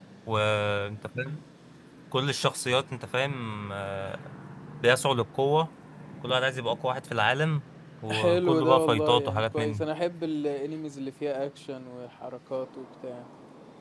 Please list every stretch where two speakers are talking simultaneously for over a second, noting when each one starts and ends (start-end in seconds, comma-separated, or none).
8.1-9.8